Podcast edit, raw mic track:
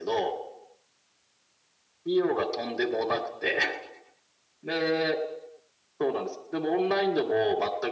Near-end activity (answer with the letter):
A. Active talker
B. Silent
B